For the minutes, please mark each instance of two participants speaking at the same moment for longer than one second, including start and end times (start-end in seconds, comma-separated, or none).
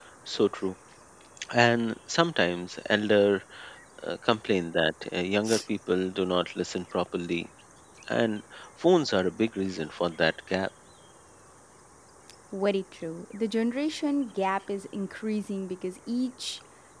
none